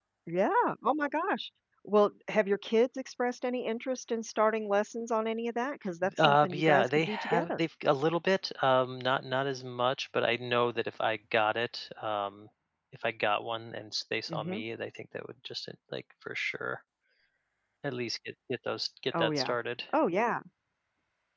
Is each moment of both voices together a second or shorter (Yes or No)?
No